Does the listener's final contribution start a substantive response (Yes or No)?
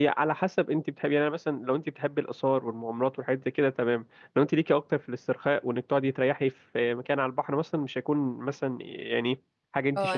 Yes